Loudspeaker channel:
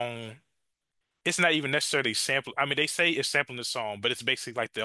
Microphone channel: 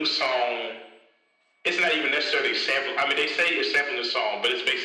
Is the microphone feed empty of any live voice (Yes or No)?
Yes